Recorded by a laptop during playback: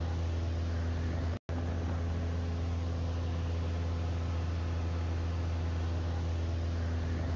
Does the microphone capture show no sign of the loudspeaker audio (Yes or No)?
Yes